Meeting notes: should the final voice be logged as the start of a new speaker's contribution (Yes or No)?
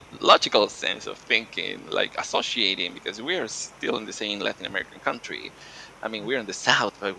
No